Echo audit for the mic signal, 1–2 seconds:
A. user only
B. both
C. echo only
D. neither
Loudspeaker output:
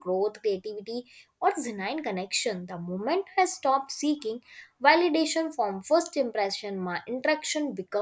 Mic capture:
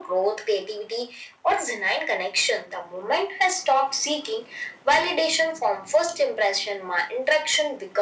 C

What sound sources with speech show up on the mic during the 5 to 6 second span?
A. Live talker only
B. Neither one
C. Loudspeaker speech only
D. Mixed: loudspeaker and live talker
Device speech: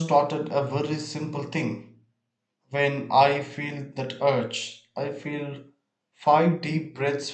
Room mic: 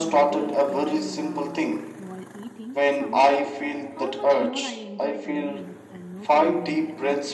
D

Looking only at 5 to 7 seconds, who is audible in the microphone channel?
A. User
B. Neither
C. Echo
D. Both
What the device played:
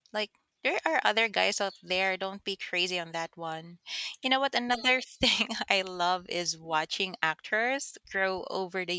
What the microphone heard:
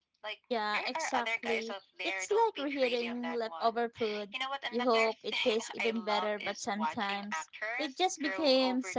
D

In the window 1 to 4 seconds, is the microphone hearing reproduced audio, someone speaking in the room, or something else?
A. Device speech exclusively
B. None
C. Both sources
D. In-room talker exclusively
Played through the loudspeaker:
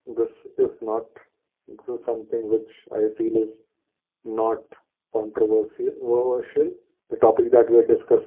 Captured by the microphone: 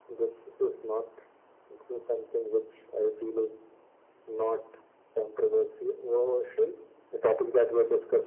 A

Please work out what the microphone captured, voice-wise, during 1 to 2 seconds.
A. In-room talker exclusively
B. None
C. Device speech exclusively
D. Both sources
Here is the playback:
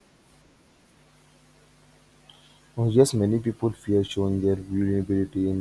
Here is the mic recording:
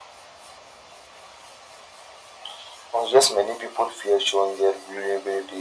B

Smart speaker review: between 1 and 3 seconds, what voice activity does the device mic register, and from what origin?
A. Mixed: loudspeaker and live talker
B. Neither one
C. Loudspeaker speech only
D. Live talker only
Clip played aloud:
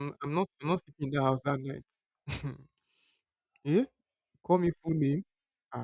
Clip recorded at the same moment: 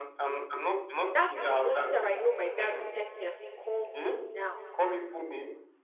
A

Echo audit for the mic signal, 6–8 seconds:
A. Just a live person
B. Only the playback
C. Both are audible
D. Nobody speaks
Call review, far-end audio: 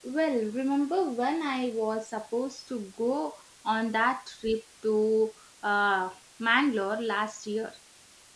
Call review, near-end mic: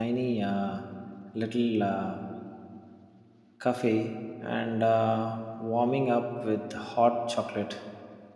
A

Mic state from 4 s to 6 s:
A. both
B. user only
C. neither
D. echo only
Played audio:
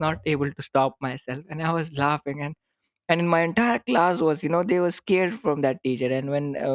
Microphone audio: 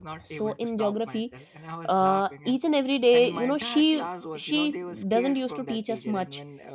A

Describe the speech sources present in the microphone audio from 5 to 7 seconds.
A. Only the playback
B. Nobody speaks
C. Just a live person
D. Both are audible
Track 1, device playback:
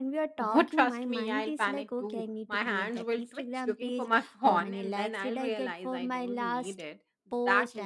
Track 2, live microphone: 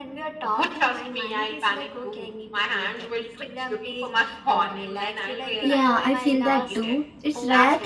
D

